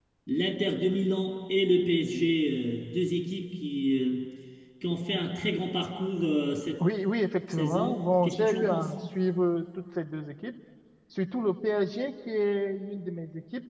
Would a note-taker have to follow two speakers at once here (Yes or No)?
Yes